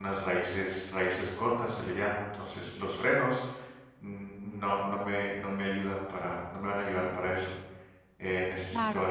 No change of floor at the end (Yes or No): Yes